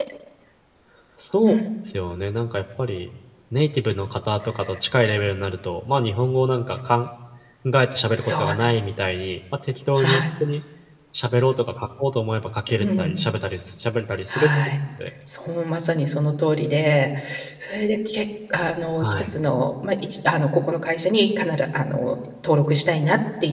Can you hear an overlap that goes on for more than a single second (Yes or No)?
No